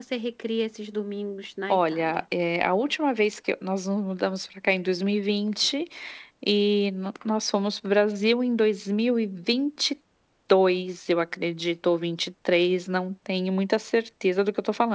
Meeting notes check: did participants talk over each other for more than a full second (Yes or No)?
No